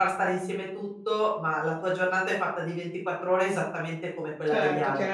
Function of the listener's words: taking over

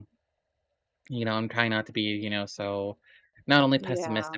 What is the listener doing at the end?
listening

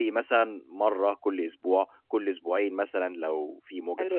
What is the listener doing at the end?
taking over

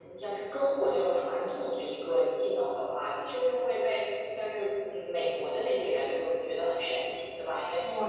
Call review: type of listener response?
listening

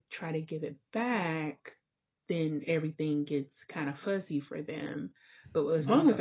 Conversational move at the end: listening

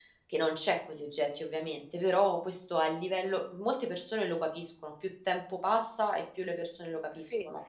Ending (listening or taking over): taking over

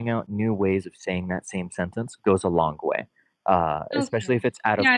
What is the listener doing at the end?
taking over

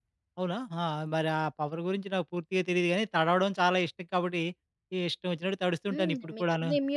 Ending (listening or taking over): taking over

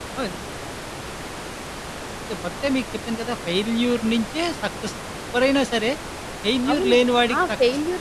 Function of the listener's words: taking over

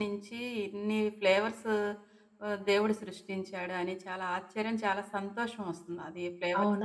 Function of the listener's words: taking over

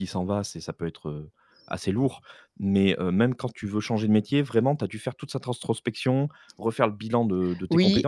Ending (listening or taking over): taking over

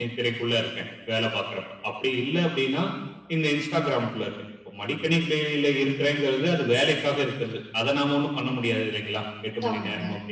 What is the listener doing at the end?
listening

